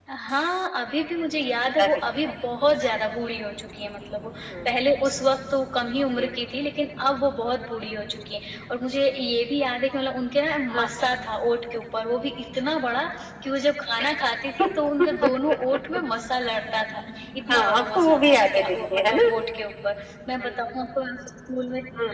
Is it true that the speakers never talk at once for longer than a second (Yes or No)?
No